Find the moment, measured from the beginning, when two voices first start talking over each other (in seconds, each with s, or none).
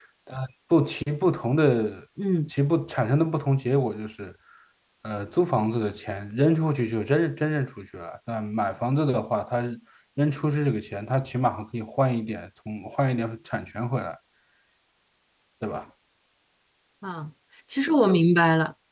none